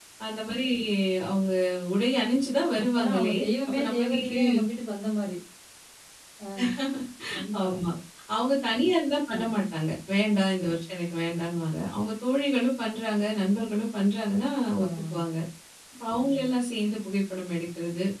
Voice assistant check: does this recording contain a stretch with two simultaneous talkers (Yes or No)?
Yes